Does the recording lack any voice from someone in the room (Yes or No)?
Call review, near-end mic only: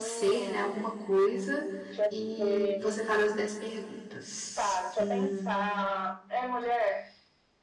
No